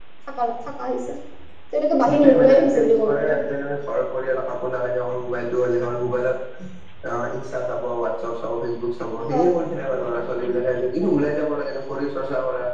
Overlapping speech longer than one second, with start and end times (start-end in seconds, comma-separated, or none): 2.1-3.3